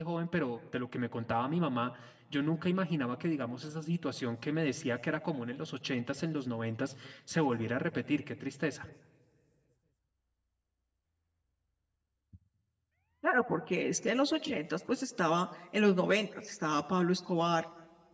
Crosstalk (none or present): none